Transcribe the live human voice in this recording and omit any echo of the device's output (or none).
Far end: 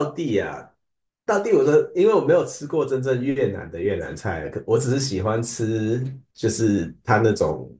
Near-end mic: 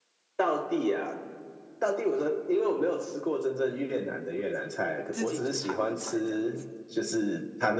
自己煮台湾菜这样子。